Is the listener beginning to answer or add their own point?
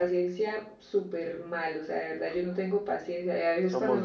No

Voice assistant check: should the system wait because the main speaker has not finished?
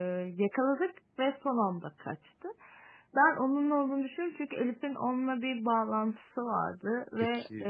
Yes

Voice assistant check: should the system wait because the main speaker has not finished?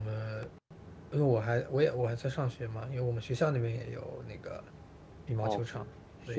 No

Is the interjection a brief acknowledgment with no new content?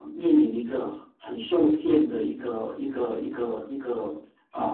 Yes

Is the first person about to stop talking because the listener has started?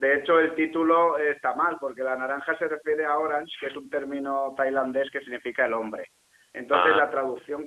No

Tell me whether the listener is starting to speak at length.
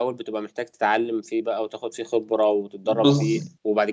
No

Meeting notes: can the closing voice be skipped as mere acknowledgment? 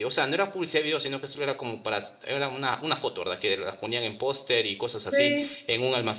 Yes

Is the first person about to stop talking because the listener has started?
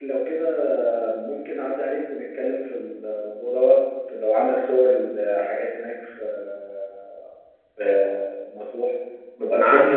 Yes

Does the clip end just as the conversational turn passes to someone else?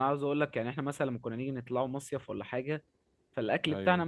No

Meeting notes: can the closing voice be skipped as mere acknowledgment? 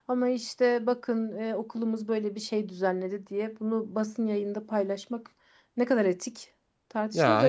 No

